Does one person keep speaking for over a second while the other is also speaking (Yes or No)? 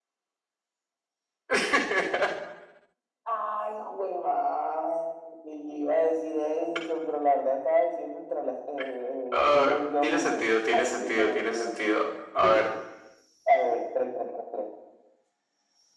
Yes